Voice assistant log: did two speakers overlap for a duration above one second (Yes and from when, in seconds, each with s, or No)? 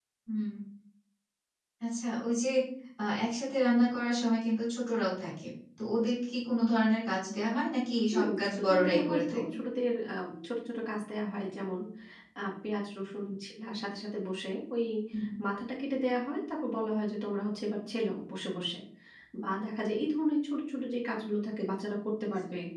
Yes, from 8.1 s